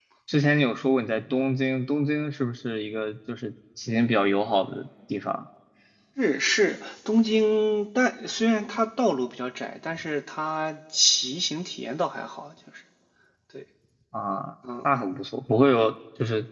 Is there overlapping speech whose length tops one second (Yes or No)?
No